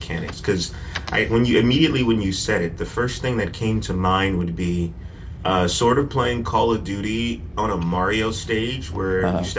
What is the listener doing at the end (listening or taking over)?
listening